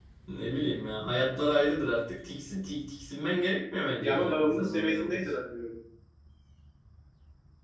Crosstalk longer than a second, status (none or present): present